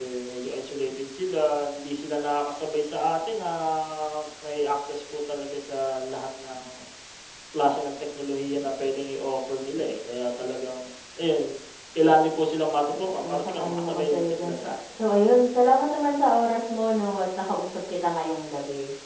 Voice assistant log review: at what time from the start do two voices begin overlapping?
13 s

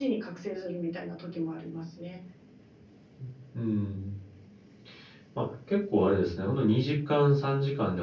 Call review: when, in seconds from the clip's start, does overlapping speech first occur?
none

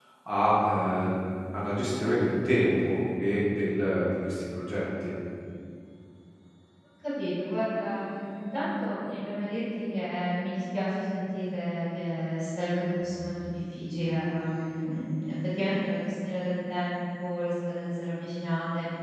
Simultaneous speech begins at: none

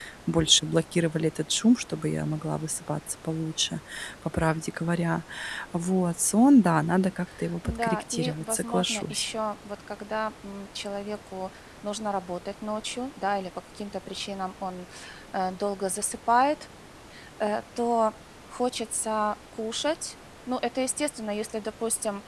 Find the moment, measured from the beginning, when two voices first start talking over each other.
8 s

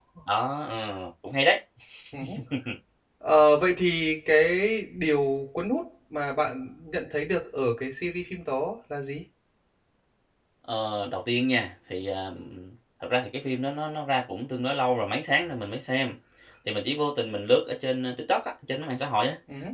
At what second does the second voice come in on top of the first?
none

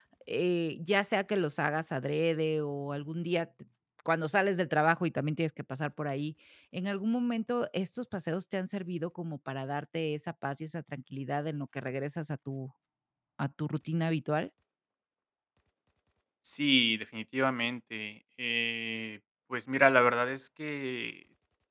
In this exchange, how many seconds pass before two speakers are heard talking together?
none

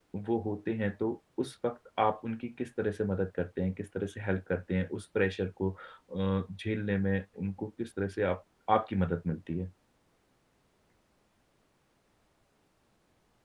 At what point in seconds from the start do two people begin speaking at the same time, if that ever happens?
none

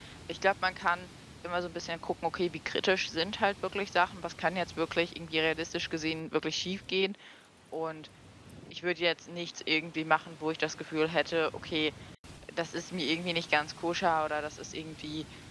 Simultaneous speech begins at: none

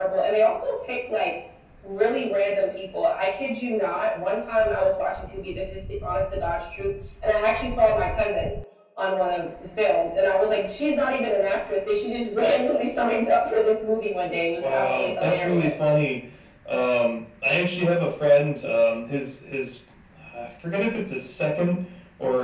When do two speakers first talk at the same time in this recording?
15 s

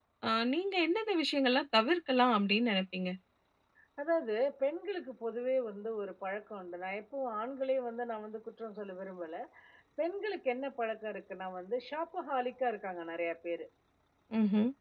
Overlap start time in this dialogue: none

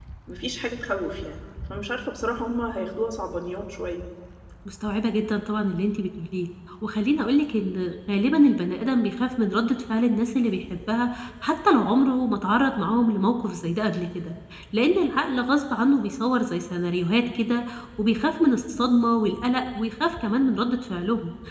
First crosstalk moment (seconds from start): none

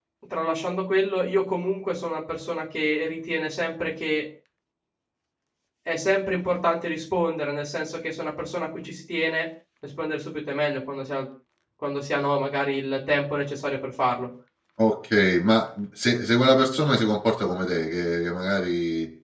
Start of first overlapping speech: none

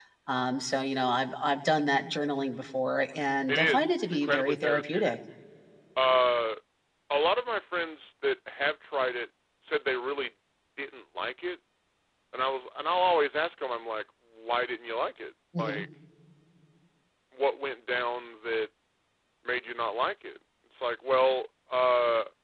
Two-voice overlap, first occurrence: 3 s

